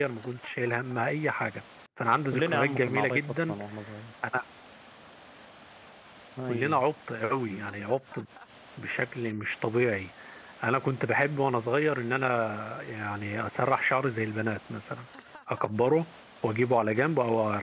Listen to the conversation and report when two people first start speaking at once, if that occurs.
2.3 s

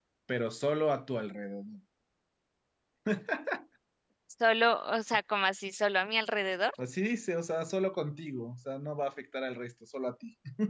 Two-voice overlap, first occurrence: none

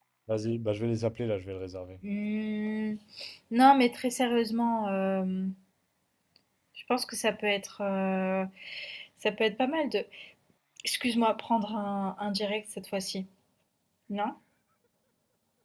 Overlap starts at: none

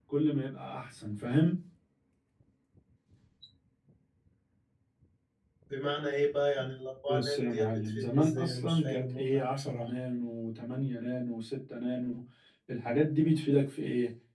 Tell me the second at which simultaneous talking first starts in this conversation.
7.1 s

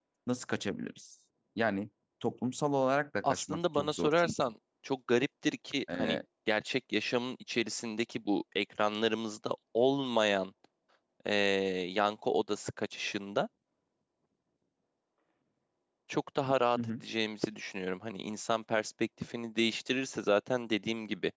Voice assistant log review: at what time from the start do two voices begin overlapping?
3.2 s

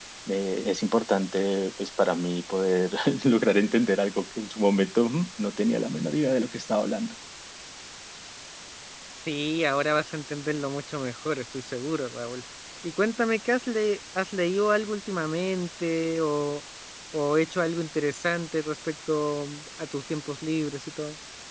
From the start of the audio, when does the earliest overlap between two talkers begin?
none

